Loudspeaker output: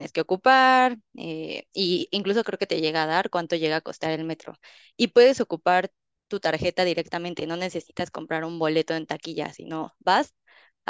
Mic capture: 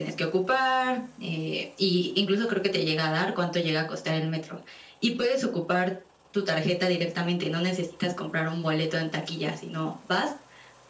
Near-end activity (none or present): none